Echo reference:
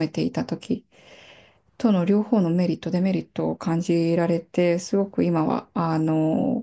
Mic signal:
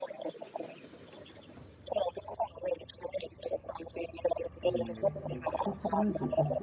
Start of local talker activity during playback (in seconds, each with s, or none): 4.6 s